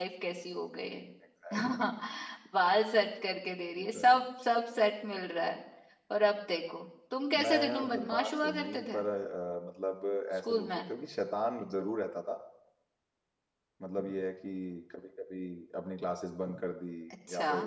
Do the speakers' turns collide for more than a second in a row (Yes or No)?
Yes